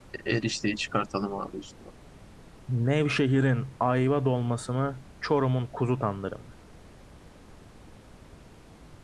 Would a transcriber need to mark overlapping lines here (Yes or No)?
No